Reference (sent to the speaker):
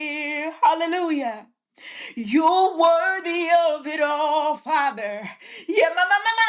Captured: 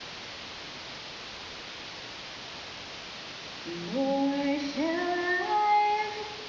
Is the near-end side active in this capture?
Yes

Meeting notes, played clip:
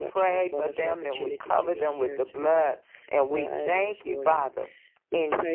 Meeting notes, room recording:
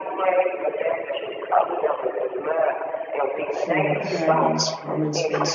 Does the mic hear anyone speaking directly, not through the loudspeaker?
Yes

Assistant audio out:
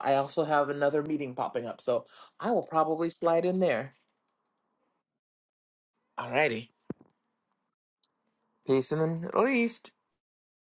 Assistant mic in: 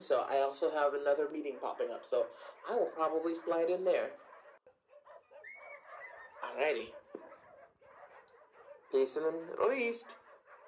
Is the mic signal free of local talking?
Yes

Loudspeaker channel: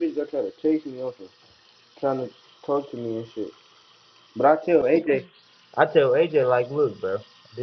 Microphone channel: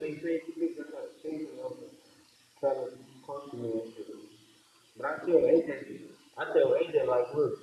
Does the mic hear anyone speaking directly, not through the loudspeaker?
No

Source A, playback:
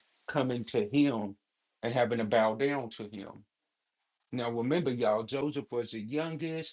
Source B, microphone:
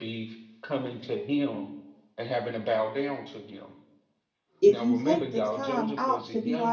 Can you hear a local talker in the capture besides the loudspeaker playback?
Yes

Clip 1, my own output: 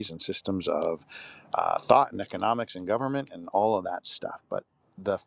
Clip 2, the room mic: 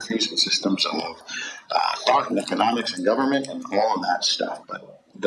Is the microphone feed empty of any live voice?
Yes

